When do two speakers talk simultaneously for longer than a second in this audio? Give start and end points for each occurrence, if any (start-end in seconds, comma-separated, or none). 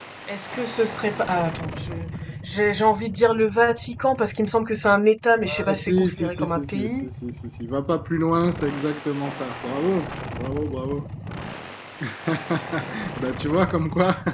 5.5-7.1